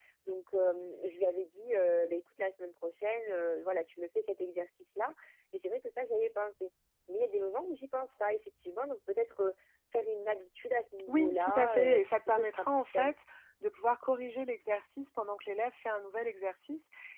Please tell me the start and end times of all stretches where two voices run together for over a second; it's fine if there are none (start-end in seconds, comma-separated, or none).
11.1-13.1